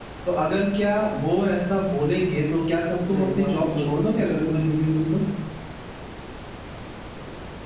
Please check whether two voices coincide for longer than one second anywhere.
Yes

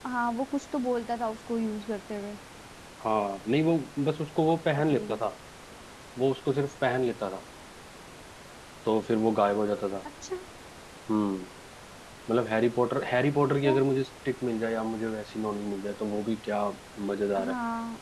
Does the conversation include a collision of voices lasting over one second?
No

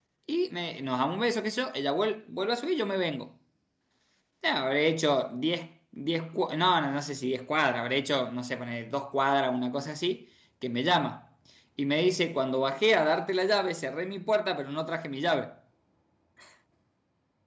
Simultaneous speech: No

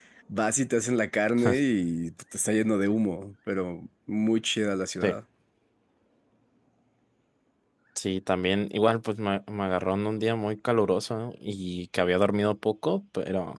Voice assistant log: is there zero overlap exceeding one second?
Yes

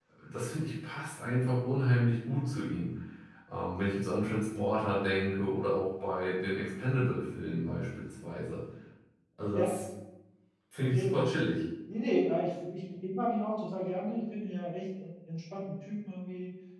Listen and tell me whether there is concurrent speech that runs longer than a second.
No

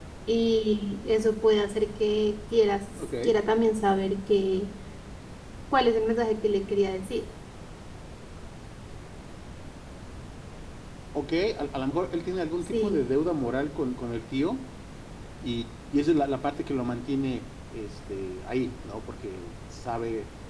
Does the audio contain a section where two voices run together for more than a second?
No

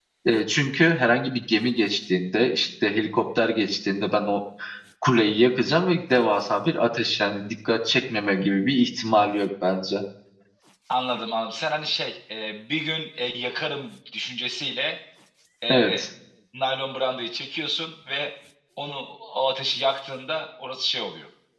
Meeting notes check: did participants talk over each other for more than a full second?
No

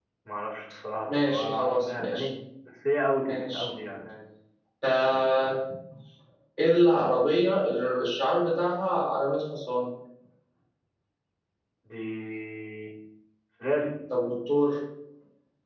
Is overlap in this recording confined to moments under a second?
No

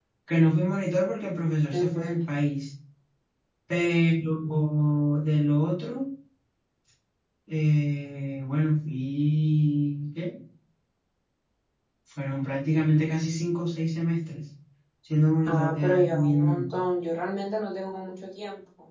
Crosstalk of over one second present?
Yes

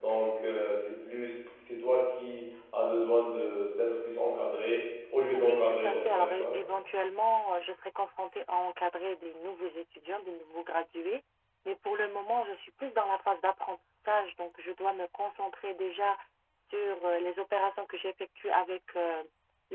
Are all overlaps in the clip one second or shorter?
No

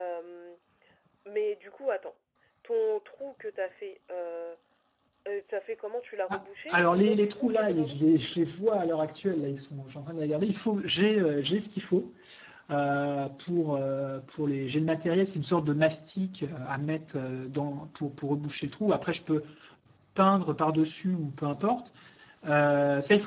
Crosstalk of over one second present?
Yes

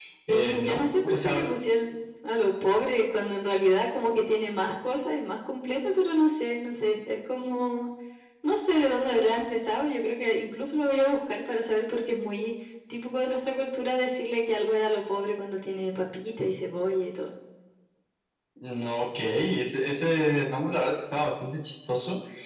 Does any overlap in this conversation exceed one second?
Yes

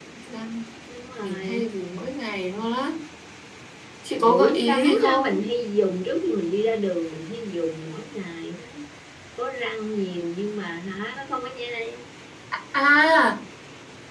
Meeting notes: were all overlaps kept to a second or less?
No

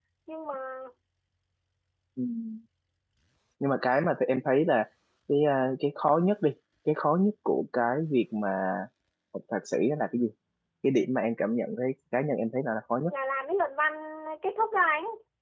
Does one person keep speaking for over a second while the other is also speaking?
No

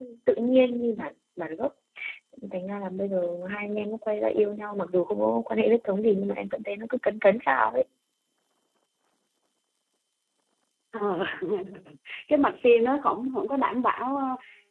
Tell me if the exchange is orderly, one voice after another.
Yes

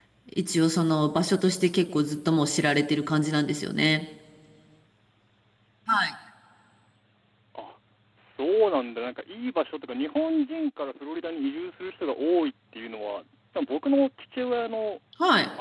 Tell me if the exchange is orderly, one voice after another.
Yes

